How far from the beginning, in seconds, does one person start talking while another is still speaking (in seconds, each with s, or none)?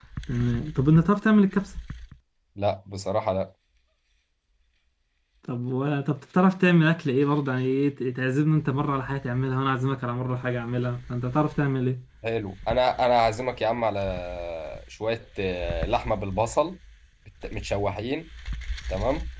none